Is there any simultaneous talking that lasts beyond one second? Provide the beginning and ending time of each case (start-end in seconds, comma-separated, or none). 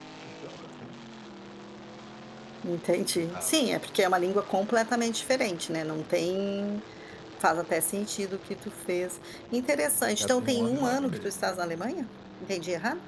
10.2-11.6